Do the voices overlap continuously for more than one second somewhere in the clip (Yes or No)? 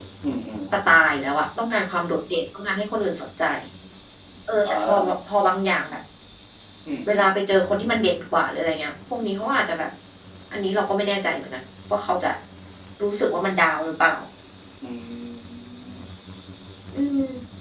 No